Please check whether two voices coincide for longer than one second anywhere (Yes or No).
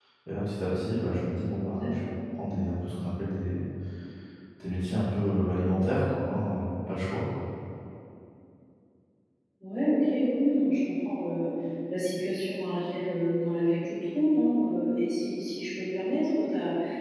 No